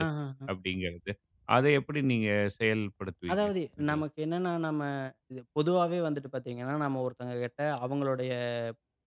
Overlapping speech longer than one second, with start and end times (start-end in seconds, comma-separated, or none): none